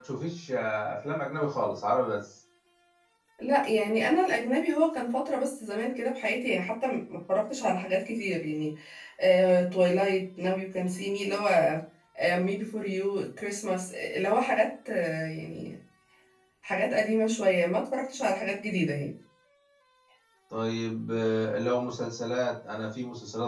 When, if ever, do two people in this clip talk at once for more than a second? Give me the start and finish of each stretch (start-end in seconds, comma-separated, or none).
none